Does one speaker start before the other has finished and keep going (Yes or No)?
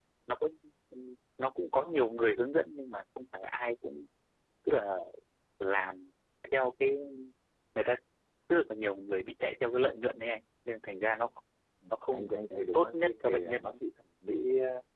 Yes